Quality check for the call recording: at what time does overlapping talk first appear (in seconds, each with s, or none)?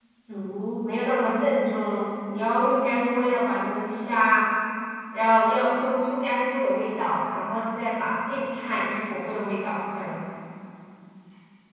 none